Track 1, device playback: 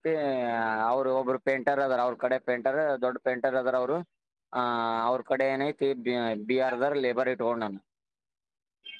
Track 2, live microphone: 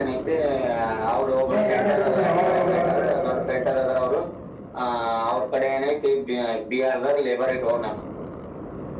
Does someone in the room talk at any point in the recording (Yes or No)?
Yes